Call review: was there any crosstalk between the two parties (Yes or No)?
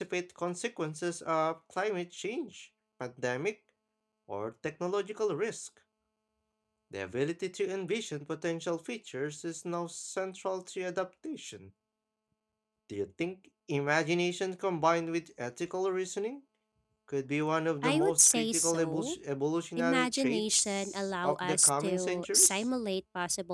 Yes